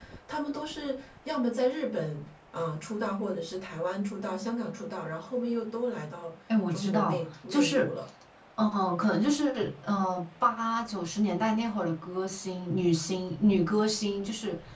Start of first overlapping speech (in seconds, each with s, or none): 6.5 s